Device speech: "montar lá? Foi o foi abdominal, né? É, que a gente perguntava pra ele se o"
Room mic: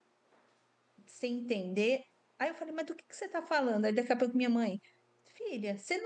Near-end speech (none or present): present